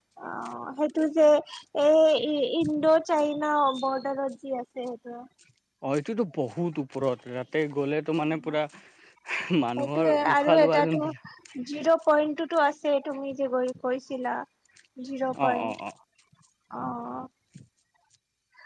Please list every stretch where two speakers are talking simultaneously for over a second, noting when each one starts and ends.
9.8-11.0

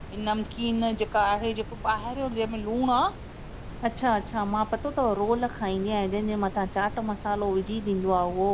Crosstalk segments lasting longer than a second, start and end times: none

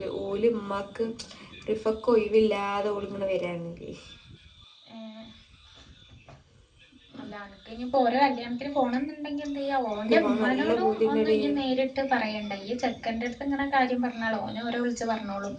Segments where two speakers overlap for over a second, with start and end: 10.0-11.4

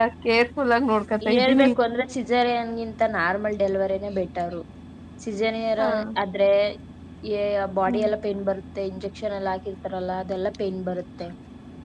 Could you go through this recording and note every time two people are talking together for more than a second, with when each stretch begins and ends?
none

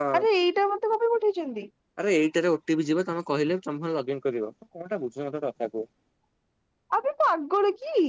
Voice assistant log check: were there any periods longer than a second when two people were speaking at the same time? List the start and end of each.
none

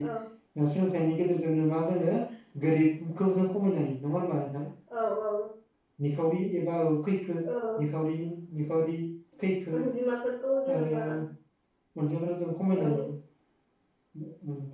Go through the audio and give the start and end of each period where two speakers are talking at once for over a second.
none

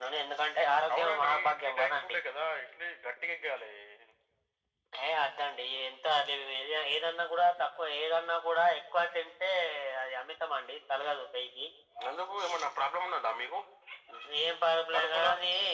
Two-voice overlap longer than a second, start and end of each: 0.9-2.2

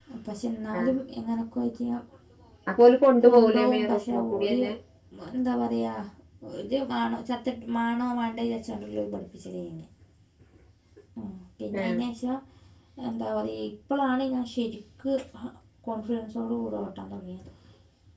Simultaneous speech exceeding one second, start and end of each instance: 3.2-4.6

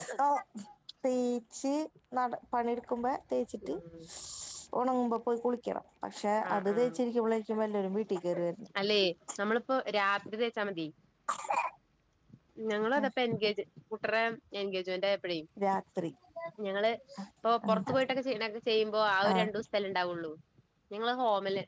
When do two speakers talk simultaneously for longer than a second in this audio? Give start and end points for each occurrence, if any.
none

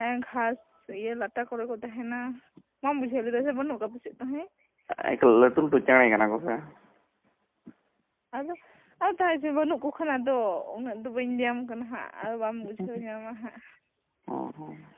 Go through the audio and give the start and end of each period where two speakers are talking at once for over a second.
none

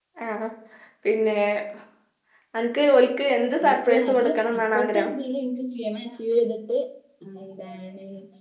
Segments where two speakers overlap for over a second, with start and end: 3.6-5.1

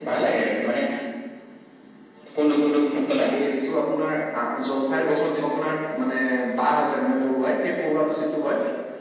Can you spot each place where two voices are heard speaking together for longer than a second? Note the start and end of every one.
none

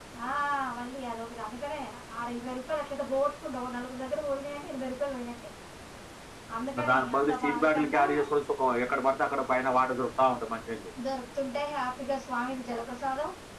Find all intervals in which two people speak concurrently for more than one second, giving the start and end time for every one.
6.8-8.0

